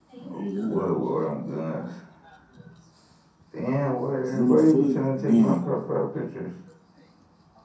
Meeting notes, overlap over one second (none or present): present